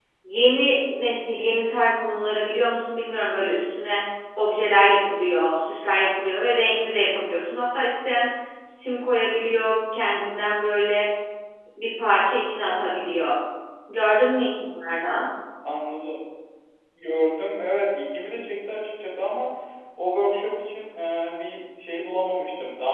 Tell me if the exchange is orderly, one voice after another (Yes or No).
Yes